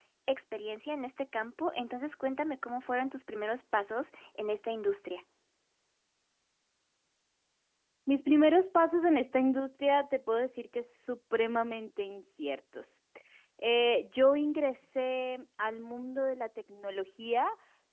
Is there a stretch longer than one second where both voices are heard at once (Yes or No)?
No